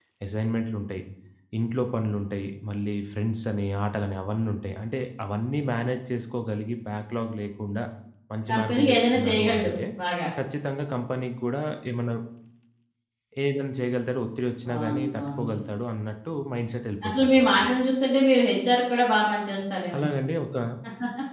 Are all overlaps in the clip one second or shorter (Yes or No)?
No